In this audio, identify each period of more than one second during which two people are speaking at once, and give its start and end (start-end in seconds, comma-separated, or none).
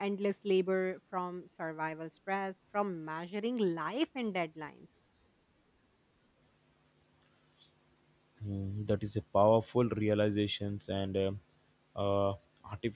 none